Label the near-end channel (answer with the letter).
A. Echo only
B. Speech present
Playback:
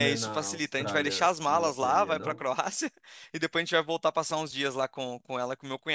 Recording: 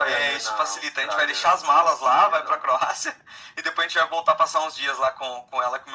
A